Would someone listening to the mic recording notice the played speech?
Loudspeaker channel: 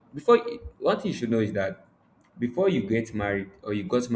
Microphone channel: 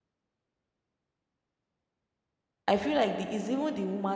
No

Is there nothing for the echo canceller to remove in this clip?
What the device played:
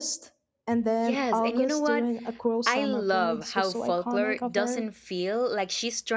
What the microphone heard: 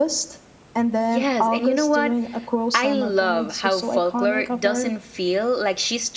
No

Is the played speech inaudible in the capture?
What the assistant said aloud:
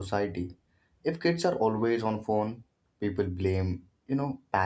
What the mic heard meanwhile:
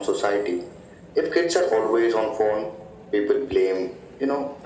No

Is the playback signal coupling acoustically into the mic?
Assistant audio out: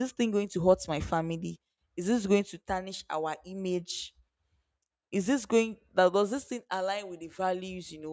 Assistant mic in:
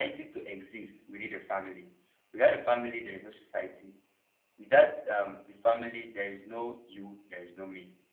No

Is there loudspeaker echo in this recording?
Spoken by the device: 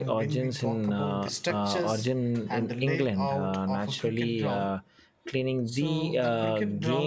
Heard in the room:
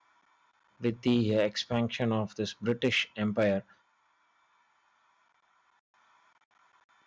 No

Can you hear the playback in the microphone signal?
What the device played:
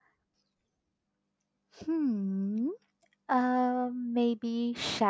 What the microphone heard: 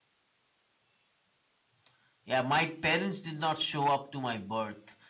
No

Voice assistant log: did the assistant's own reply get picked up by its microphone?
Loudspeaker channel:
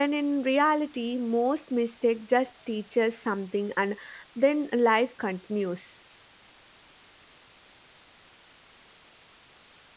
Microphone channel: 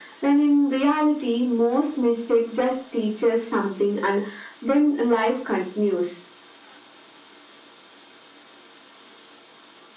Yes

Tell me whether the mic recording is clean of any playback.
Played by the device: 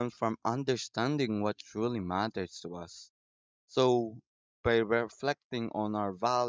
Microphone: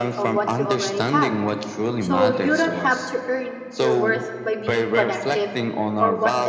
No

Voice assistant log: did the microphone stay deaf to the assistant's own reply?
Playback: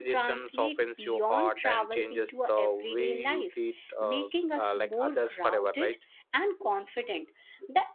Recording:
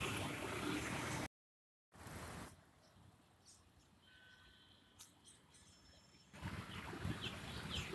Yes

